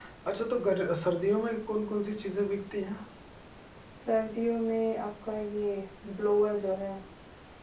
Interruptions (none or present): none